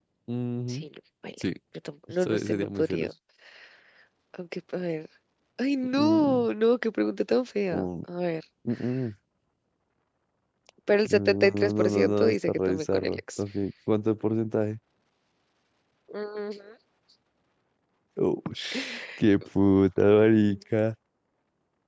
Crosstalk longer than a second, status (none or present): present